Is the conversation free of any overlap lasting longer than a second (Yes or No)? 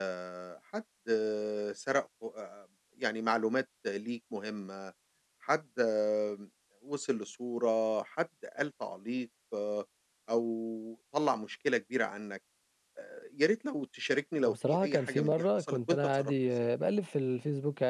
No